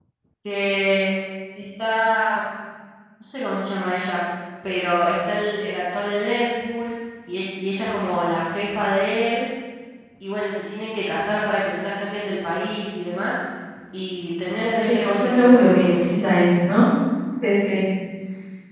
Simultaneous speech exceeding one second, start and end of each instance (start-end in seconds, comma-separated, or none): 14.6-16.3